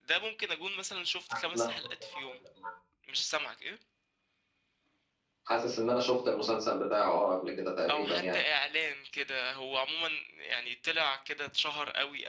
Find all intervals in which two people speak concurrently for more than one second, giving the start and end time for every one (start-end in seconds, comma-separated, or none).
none